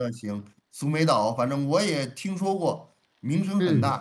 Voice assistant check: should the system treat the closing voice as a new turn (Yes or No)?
Yes